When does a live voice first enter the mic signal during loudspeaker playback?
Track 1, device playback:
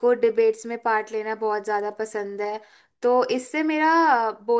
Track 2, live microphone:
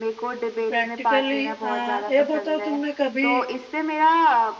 0.7 s

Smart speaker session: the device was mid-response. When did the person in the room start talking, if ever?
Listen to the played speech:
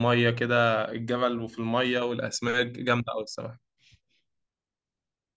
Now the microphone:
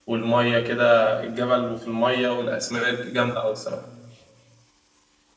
none

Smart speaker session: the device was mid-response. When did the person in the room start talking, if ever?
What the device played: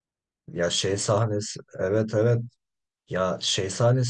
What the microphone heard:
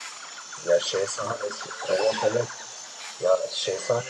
none

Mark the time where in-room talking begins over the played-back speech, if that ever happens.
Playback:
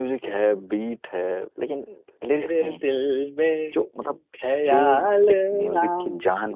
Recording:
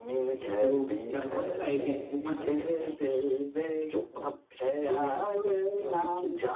0.6 s

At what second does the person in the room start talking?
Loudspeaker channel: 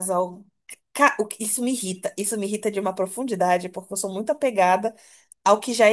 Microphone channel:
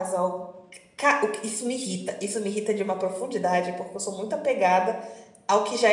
none

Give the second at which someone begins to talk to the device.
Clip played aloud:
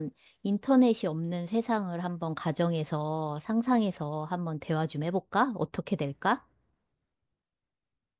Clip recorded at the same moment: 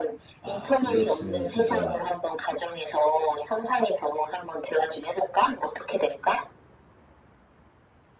0.4 s

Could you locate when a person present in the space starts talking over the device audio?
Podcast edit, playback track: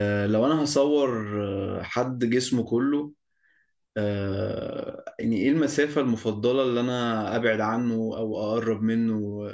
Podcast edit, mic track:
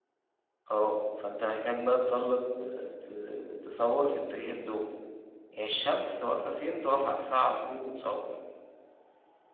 0.7 s

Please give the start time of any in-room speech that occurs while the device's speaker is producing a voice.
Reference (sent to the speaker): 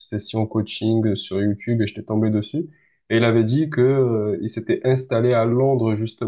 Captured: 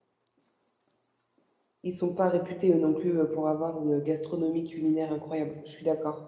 1.8 s

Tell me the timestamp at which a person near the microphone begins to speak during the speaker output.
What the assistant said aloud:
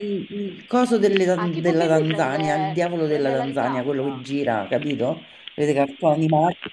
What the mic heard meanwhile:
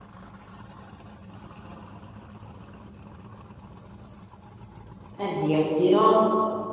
5.1 s

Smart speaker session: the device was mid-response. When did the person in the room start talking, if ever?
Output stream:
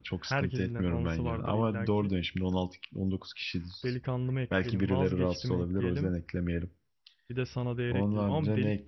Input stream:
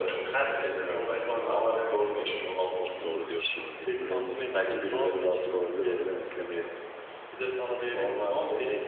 1.4 s

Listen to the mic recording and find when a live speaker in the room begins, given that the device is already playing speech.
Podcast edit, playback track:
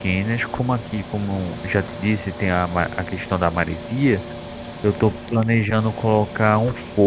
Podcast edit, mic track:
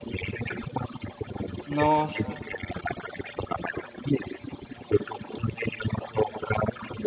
1.6 s

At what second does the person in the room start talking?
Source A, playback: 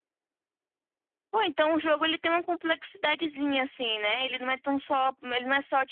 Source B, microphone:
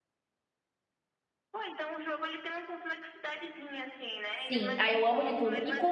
4.5 s

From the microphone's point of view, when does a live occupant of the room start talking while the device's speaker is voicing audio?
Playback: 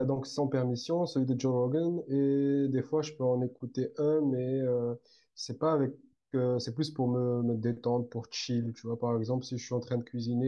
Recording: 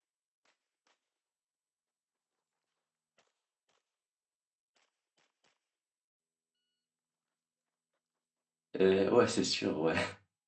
8.8 s

